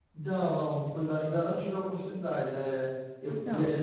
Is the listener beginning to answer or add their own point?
No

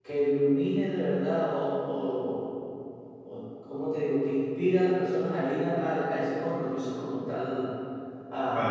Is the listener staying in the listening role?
No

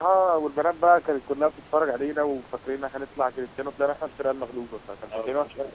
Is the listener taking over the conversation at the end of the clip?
Yes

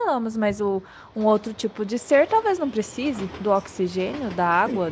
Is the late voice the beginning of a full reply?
Yes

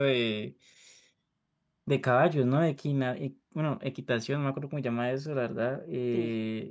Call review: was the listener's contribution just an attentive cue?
Yes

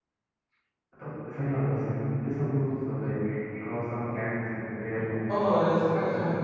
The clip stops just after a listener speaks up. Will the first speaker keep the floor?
No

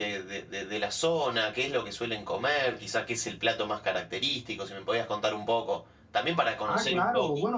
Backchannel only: No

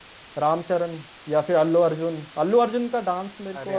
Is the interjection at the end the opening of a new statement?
No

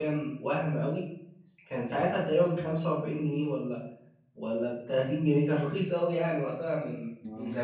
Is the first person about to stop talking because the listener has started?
Yes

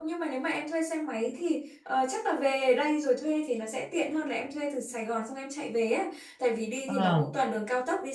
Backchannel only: Yes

